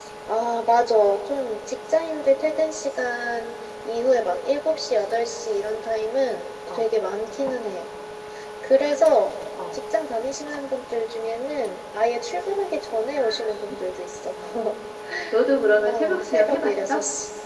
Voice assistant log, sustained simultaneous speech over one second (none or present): present